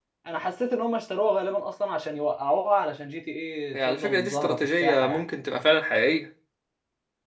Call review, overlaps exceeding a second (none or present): present